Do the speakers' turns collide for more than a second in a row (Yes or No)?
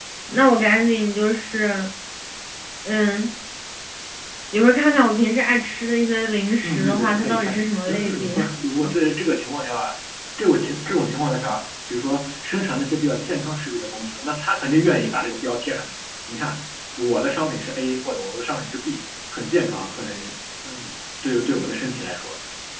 Yes